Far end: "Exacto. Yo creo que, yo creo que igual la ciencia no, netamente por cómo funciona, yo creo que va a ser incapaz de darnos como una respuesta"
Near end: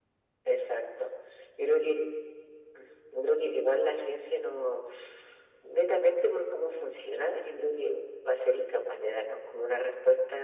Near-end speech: none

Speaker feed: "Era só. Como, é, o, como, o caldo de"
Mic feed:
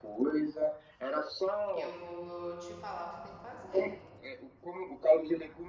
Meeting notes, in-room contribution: present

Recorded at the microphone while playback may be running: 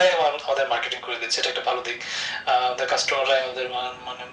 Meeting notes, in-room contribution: none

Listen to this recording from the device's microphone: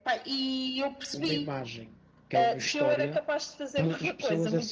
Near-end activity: present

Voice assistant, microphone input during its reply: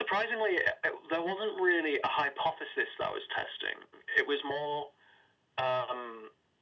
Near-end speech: none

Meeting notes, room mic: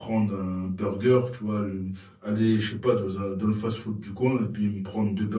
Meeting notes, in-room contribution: present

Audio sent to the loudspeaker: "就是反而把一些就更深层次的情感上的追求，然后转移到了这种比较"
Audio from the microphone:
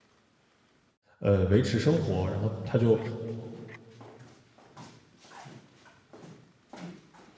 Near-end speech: present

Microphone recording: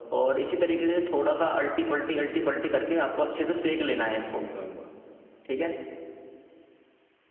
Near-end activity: present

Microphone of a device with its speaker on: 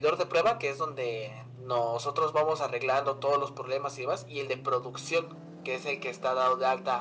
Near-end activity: none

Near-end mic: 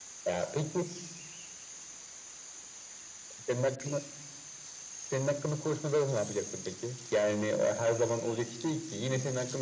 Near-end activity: none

